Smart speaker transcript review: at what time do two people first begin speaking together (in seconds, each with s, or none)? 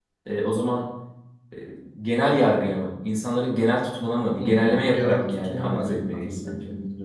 4.4 s